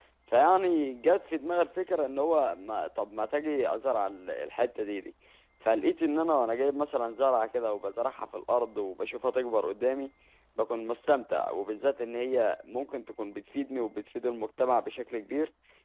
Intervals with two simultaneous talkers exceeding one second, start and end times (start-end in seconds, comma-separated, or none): none